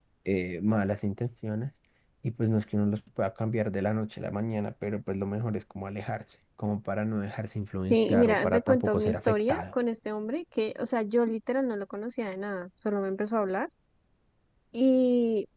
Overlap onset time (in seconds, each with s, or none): 7.8 s